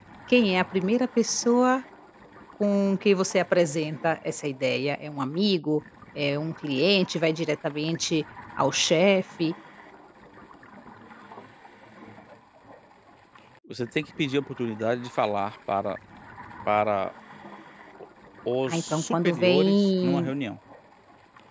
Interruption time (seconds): 19 s

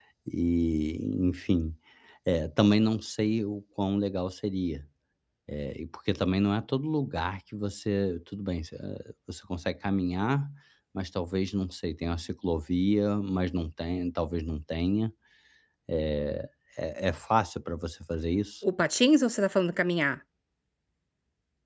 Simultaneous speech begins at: none

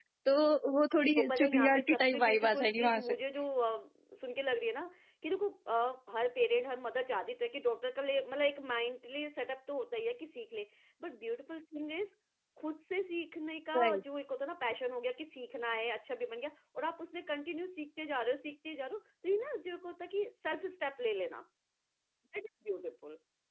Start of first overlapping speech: 1 s

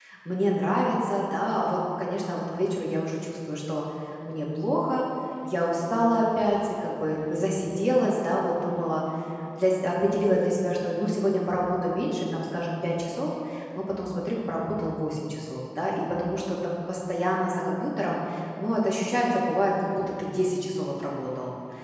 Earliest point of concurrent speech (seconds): none

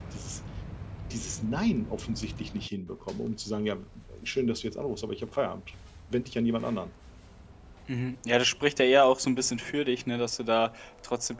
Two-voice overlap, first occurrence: none

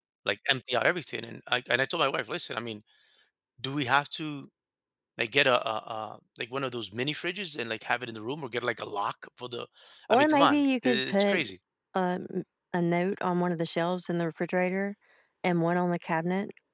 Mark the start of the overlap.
10 s

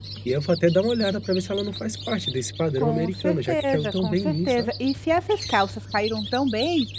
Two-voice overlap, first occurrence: 3 s

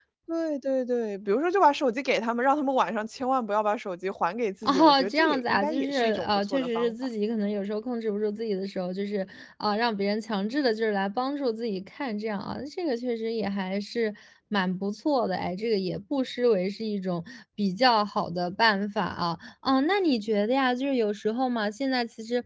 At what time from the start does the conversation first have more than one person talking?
5 s

